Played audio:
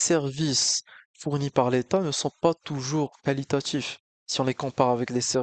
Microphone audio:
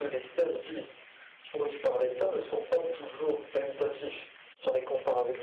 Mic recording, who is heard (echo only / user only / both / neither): echo only